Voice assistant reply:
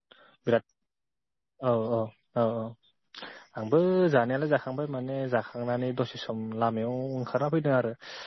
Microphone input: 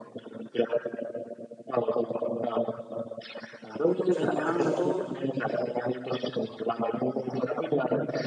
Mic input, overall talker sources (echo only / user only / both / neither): both